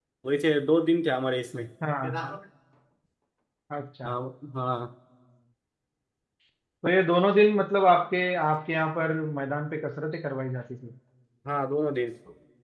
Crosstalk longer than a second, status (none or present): none